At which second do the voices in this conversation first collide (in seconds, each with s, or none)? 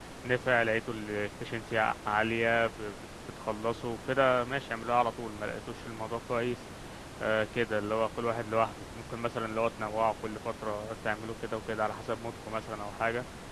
none